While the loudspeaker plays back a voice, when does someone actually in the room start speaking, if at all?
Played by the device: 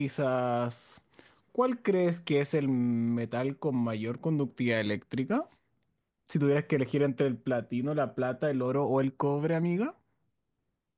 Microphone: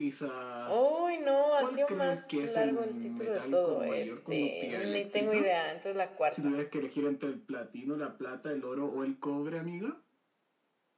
0.6 s

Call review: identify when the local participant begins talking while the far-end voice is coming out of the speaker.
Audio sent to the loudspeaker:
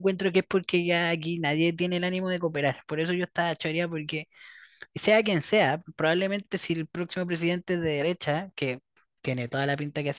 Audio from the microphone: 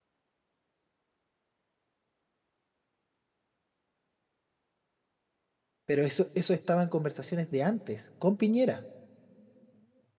5.8 s

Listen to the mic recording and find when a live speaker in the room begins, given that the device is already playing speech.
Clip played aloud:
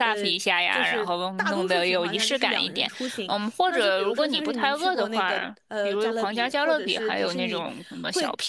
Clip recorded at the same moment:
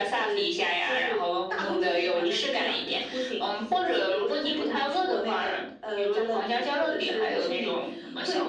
none

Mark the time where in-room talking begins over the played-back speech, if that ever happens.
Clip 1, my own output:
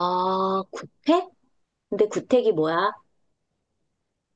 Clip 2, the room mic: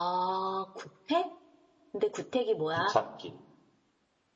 2.7 s

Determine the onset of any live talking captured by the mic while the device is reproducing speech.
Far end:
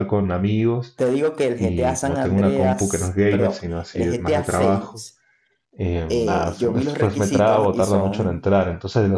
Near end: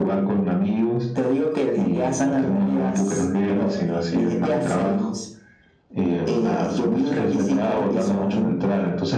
none

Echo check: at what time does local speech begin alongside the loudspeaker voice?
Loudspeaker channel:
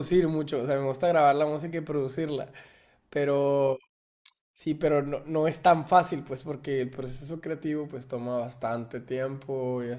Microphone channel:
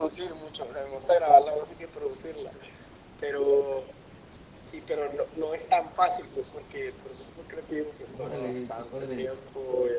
8.1 s

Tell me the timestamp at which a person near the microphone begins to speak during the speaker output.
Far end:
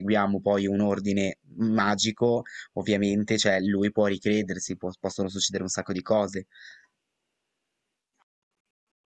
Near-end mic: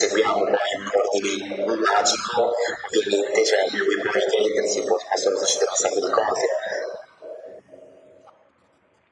none

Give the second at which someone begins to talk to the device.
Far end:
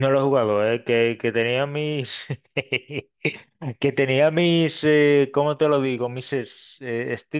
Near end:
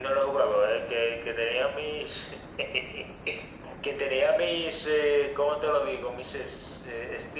none

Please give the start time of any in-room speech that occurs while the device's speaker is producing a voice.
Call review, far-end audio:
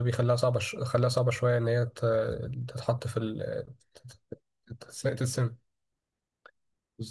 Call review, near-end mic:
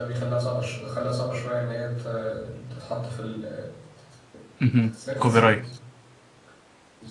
4.6 s

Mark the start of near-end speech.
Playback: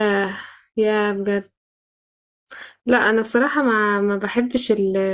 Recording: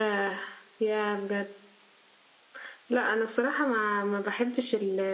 none

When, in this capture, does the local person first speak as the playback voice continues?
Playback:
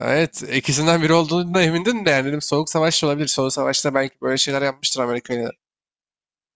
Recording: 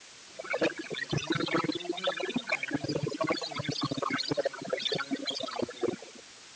none

